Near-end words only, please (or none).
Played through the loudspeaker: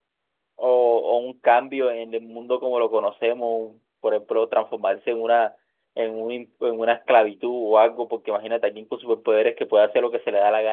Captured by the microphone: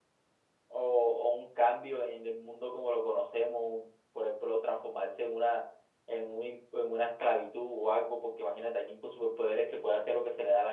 none